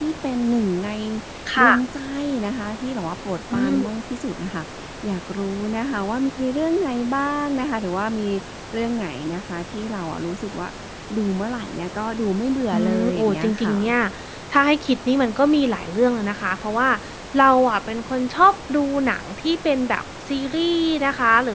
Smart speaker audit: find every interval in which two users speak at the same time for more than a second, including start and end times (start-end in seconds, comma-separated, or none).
12.7-13.9